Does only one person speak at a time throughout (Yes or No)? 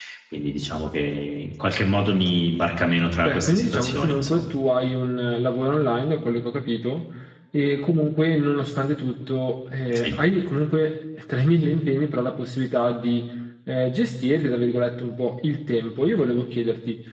No